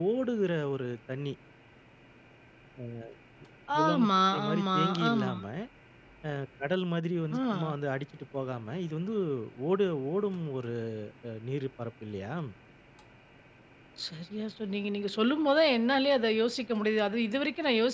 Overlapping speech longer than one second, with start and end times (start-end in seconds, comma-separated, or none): 3.8-5.4